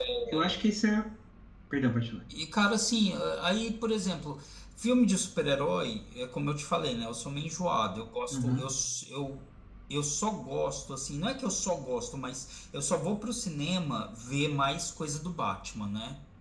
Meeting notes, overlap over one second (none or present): none